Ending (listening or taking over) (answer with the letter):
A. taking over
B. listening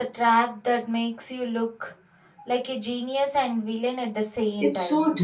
A